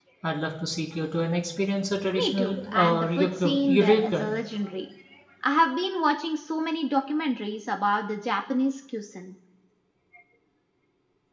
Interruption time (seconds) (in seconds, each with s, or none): 2.1 s